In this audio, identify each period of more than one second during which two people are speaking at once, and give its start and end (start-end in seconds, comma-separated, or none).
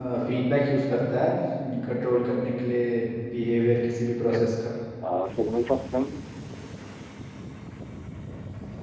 none